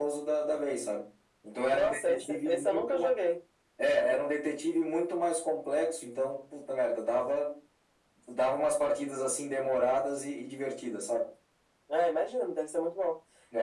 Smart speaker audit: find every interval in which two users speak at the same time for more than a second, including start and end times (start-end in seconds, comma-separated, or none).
1.7-3.1